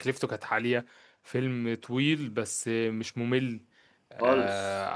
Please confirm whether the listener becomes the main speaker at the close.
No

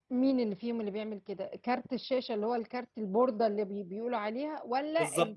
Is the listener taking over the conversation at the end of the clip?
Yes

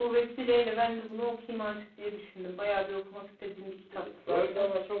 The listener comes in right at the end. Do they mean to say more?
Yes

